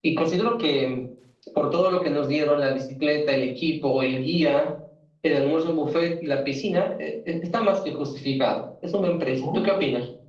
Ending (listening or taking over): taking over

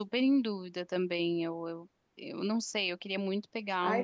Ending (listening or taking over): taking over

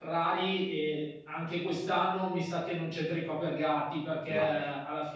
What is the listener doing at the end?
listening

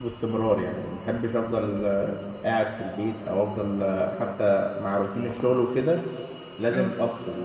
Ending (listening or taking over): listening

